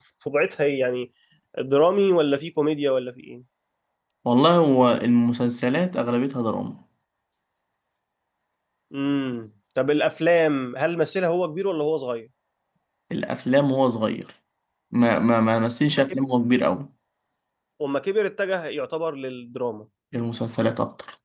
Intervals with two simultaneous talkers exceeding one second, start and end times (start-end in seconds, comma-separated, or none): none